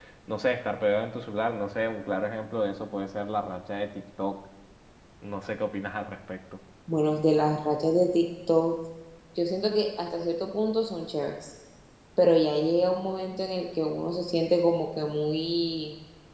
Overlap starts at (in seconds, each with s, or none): none